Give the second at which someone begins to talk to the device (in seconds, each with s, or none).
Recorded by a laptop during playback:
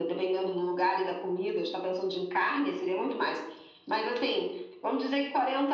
none